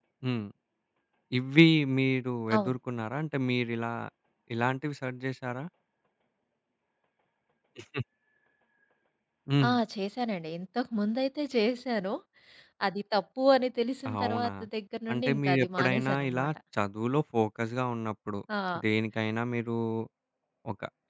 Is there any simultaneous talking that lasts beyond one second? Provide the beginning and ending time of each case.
15.1-16.5

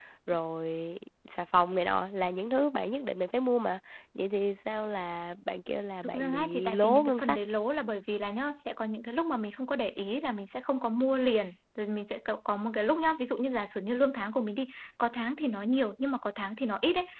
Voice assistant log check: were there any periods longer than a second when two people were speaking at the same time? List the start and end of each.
6.0-7.4

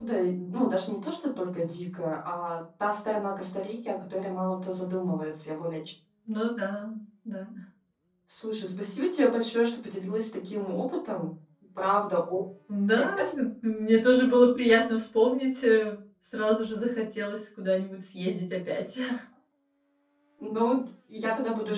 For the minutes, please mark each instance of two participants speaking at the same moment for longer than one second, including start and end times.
none

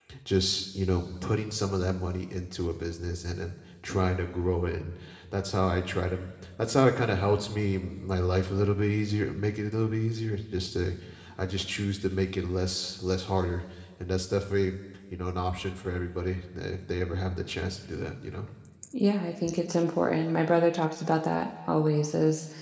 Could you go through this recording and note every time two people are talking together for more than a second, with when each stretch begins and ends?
none

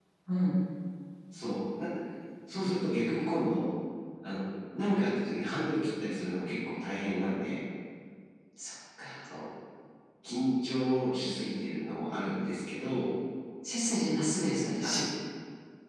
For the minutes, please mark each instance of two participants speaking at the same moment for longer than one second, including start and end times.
none

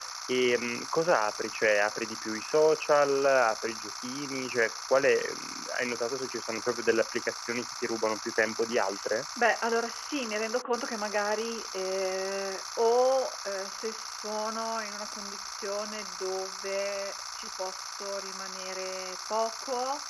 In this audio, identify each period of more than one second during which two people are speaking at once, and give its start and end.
none

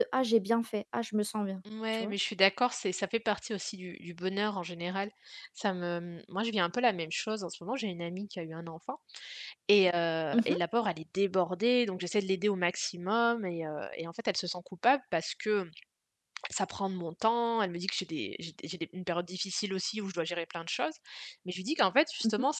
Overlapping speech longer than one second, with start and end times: none

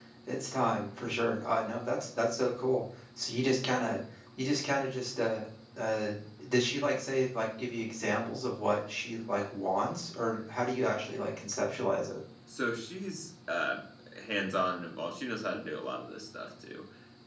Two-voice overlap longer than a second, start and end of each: none

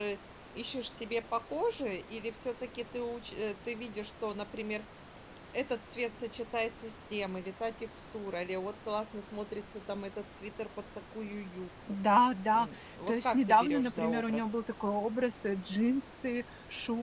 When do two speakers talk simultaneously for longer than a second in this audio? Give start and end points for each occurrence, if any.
13.1-14.4

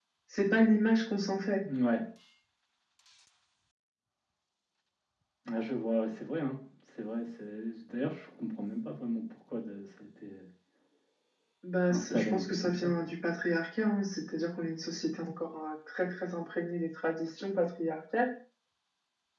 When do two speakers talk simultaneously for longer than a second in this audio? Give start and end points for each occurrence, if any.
11.9-13.1

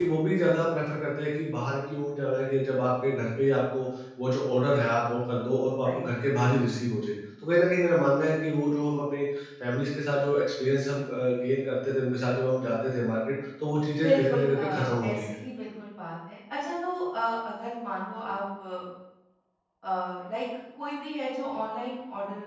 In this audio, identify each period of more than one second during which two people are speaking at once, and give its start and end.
14.0-15.3

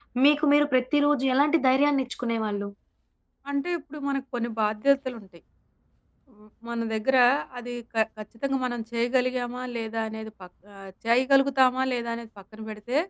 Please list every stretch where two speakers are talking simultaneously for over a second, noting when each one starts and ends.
none

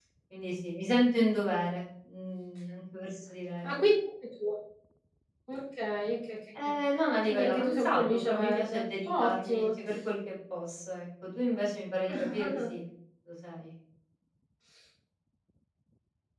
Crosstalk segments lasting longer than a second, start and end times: 7.3-9.6

